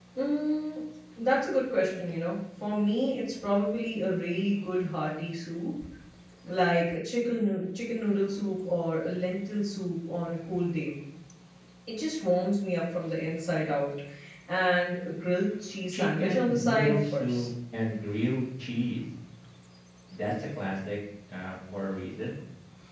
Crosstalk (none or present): present